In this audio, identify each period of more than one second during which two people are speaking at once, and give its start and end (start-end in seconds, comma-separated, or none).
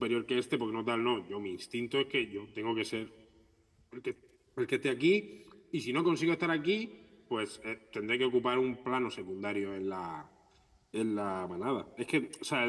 none